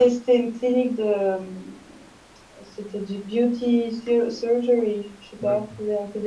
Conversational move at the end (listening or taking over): listening